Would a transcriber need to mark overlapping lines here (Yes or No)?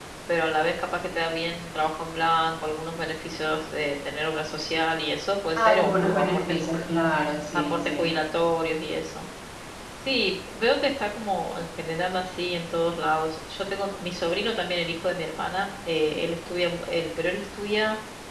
Yes